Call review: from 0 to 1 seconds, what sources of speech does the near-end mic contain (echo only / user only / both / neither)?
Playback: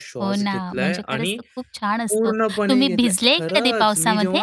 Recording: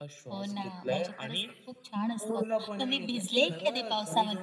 echo only